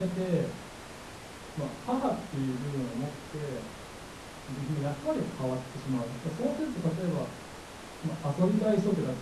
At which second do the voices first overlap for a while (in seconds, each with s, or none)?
none